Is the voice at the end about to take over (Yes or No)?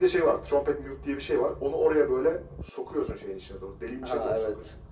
No